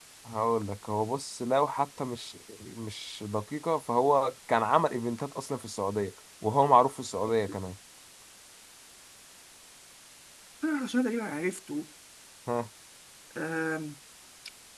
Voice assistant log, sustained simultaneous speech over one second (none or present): none